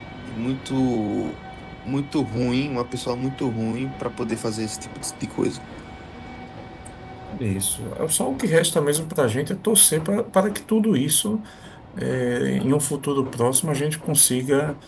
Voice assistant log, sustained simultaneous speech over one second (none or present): none